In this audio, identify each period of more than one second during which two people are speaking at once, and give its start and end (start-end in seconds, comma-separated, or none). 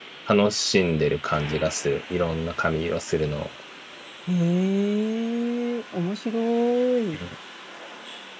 none